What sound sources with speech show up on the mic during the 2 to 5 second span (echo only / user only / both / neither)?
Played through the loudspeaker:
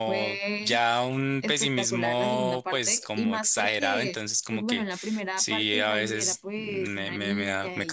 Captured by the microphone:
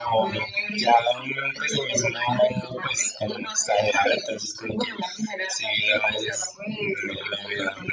echo only